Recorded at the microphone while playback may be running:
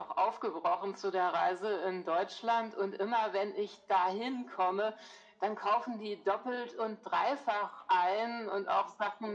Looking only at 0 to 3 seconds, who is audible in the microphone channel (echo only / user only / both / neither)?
echo only